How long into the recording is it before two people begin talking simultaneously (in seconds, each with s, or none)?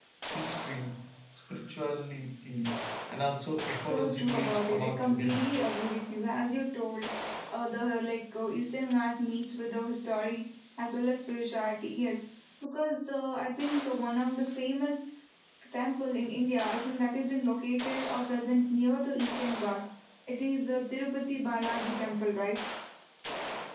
3.8 s